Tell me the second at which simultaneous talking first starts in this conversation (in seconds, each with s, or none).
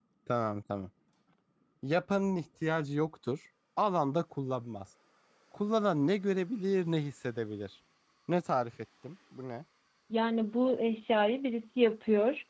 none